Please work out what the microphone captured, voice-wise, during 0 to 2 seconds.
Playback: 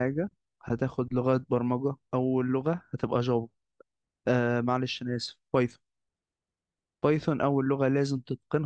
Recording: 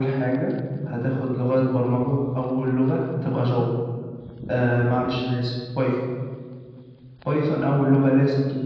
echo only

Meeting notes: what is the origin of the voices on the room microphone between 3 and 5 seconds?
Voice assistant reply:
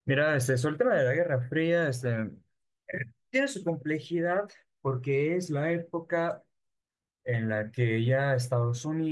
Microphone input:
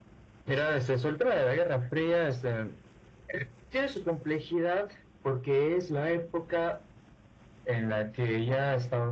echo only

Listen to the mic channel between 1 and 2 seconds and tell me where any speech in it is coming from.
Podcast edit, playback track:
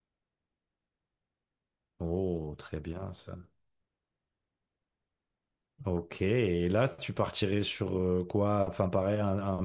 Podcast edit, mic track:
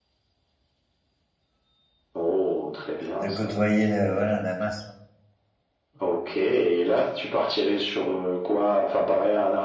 neither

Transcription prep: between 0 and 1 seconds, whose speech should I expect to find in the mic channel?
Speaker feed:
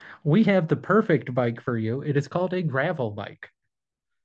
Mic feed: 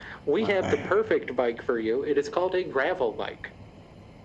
both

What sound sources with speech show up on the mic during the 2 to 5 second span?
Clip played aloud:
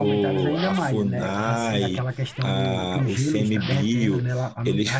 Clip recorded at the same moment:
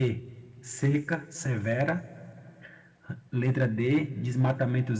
user only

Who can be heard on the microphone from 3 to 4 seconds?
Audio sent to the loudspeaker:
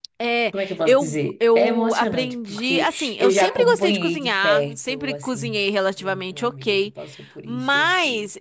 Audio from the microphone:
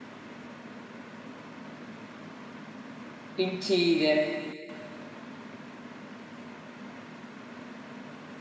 user only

